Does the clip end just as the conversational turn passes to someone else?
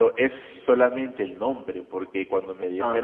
No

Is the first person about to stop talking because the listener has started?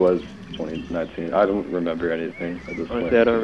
Yes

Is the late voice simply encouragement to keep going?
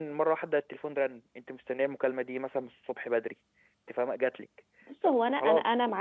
No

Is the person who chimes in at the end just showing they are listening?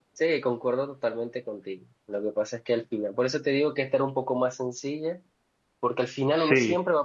Yes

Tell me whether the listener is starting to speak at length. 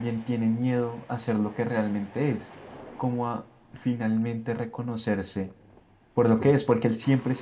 No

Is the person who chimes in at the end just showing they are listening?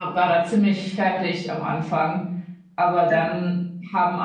Yes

